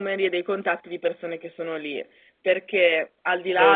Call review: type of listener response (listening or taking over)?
listening